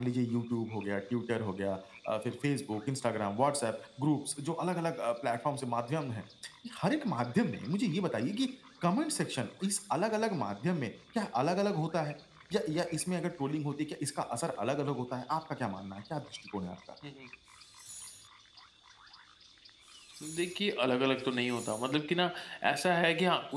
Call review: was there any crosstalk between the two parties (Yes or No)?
No